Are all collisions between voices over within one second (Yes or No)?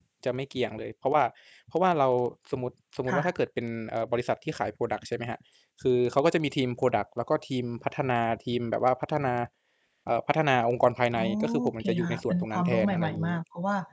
No